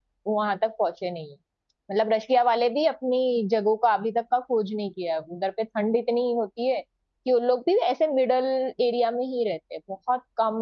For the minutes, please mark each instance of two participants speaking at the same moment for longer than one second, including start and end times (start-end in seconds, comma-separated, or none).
none